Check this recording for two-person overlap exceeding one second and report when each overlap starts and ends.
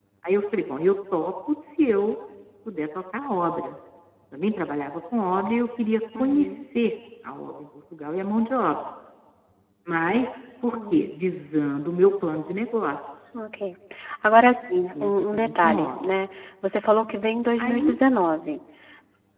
14.9-16.1

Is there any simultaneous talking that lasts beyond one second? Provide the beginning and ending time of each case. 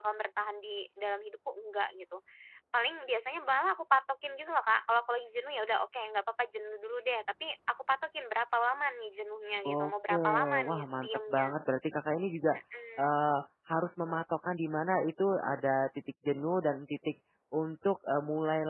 9.7-11.5

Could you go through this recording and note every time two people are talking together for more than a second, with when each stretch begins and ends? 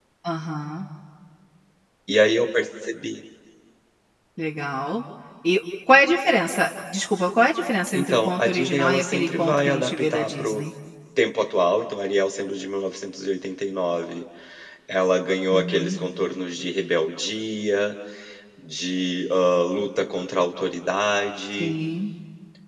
7.9-10.6

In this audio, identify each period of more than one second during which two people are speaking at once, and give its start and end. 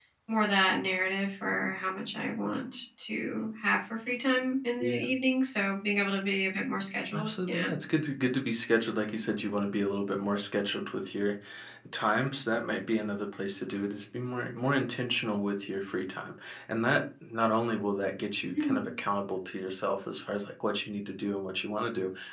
none

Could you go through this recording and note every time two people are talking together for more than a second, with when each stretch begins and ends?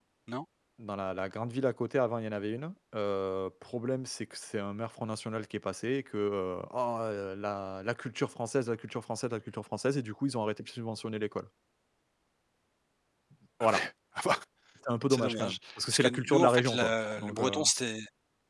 15.1-17.6

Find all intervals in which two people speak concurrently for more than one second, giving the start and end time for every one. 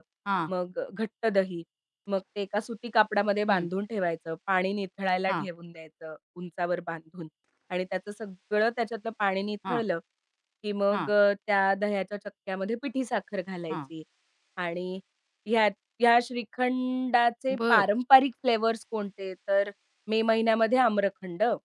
none

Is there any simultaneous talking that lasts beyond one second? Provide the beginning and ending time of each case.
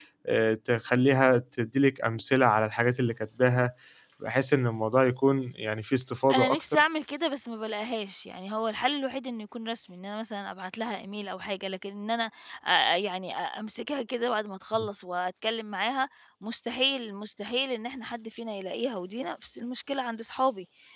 none

